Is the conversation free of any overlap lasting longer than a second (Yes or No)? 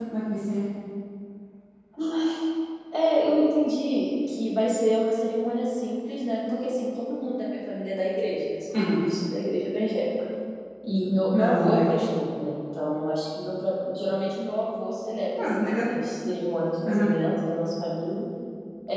Yes